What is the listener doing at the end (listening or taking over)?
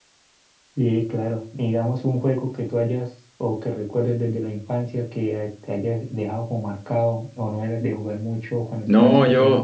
taking over